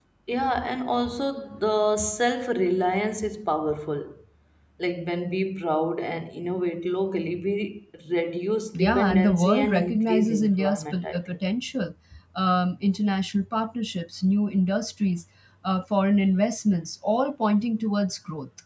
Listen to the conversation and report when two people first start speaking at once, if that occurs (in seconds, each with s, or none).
8.7 s